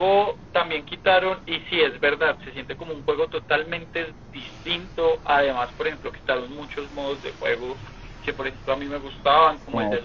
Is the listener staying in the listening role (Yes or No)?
Yes